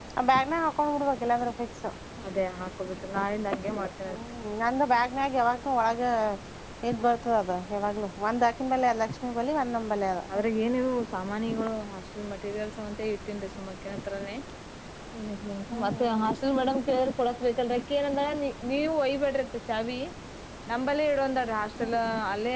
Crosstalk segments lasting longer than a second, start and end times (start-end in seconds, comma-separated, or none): none